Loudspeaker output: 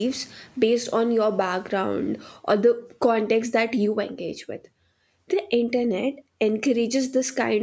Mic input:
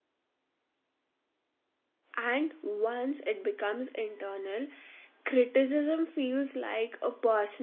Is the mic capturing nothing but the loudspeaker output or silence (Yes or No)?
No